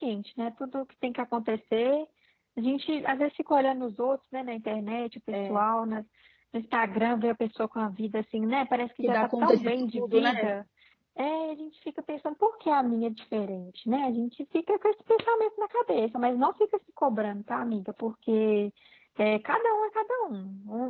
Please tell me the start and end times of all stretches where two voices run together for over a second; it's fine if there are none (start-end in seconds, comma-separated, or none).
9.0-10.3